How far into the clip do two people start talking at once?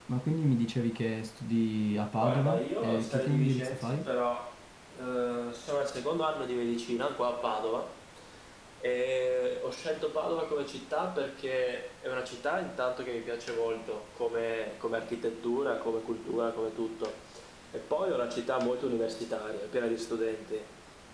2 s

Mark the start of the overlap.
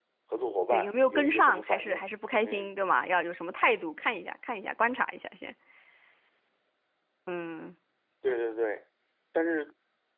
1 s

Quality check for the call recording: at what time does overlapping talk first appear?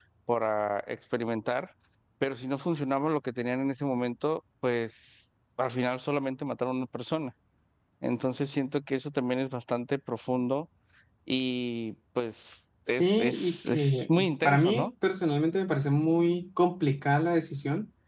13 s

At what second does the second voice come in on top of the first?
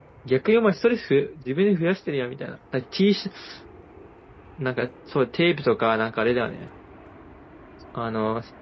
none

